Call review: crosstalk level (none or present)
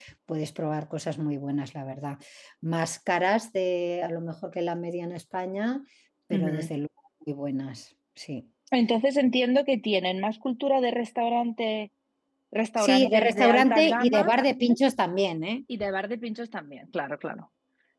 present